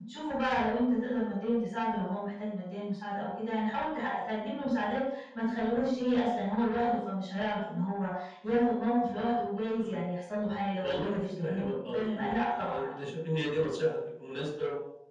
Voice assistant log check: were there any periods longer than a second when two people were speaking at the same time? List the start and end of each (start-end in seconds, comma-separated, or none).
10.8-12.8